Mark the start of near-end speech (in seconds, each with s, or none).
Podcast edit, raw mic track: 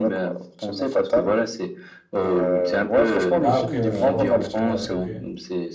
3.4 s